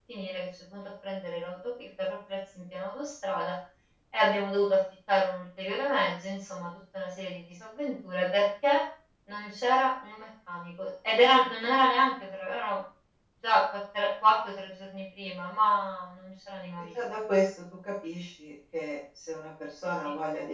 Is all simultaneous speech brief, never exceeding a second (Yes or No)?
Yes